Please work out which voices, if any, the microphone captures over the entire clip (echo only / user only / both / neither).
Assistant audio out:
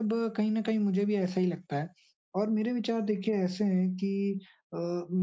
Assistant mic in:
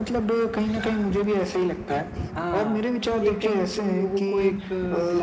both